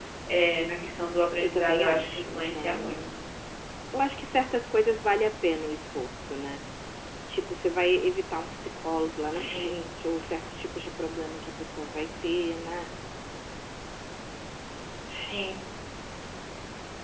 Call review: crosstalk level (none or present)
present